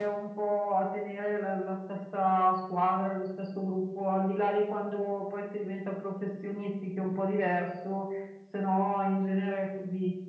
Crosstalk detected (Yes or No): No